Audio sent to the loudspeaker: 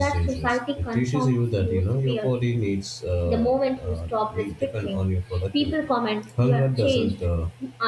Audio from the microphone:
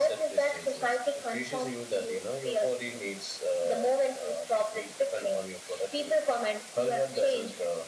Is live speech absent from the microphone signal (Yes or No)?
Yes